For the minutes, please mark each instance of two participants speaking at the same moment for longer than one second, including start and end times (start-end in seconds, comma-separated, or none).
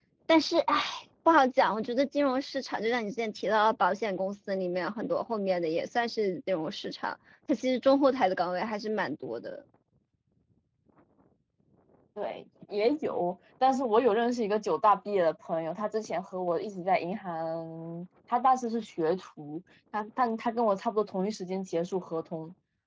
none